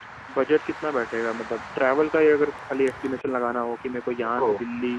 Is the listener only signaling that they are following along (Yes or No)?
Yes